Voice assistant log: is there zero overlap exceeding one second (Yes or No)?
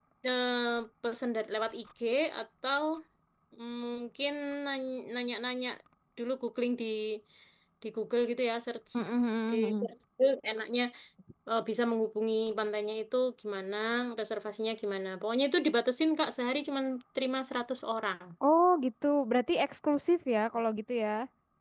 Yes